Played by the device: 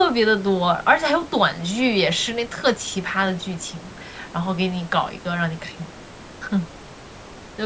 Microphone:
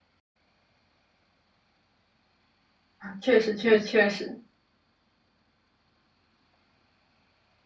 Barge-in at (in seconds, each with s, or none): 3.0 s